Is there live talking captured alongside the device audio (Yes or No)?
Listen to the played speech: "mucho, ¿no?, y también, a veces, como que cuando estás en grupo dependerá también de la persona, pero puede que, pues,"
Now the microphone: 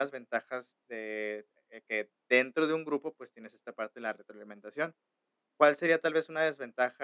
Yes